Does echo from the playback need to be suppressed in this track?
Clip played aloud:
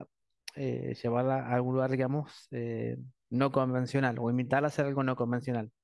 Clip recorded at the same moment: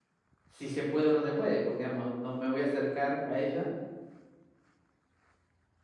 No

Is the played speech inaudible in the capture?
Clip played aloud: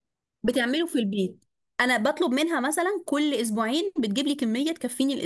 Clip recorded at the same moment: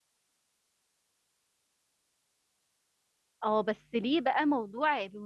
Yes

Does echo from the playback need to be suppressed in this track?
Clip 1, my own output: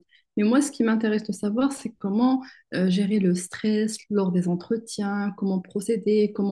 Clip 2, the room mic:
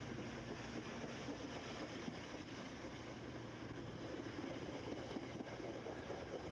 No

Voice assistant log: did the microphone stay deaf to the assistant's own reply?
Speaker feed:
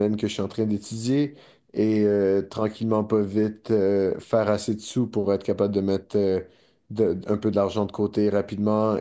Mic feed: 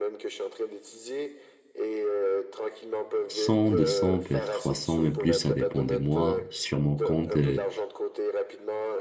No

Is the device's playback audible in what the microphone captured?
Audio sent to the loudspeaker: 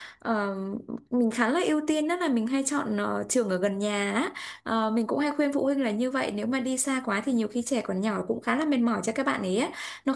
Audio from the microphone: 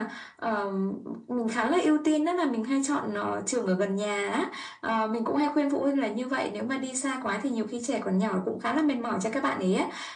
Yes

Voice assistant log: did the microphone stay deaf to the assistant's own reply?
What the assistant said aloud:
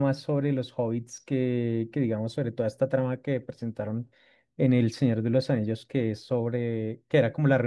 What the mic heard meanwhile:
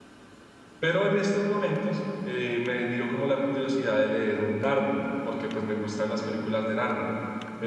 Yes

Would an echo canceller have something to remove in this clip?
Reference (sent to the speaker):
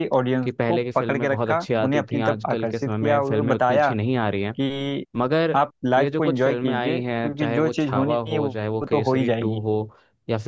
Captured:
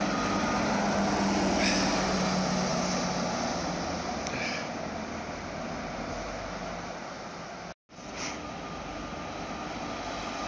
No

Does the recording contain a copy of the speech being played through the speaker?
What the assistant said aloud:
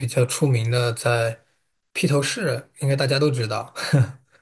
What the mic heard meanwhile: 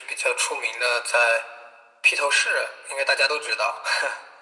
Yes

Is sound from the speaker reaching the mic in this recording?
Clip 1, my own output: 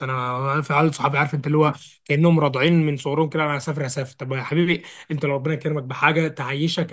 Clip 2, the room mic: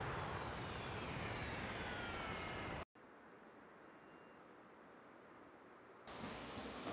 No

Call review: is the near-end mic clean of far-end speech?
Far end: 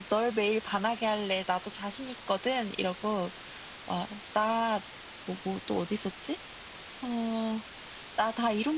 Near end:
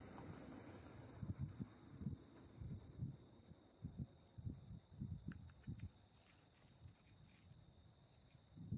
Yes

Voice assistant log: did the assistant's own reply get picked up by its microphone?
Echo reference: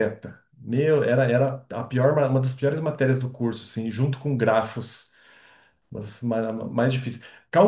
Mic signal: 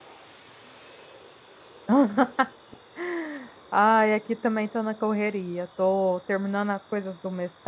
No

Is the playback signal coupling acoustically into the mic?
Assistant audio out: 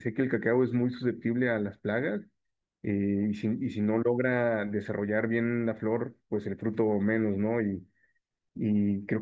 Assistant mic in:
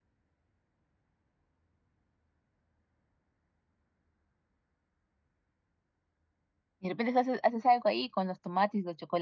No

